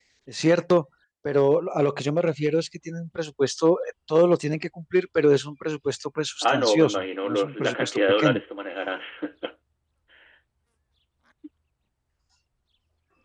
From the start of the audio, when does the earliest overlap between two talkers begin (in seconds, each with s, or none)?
6.4 s